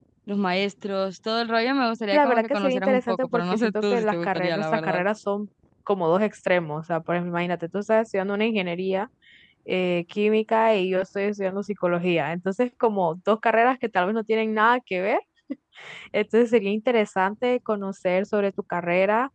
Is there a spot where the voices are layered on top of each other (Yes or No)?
Yes